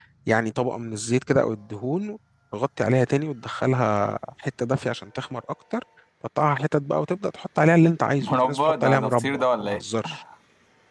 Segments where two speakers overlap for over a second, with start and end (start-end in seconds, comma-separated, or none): 8.2-9.8